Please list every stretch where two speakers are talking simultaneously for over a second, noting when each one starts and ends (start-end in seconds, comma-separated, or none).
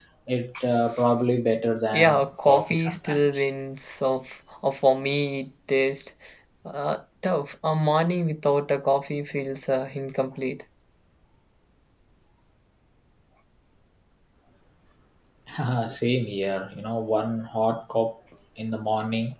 1.9-3.3